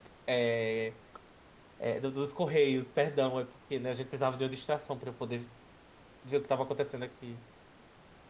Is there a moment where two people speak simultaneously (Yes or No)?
No